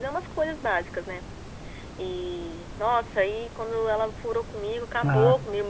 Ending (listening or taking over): listening